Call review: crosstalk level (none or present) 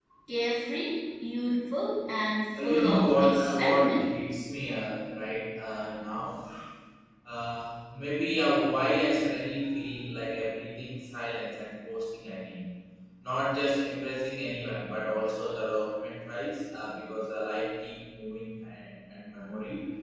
present